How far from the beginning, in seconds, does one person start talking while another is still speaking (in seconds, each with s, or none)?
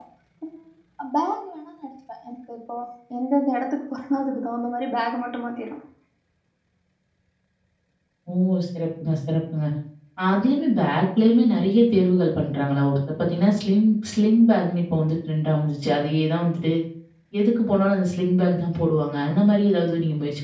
none